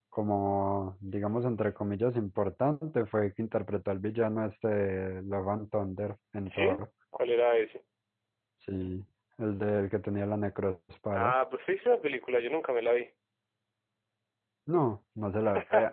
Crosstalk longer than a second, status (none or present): none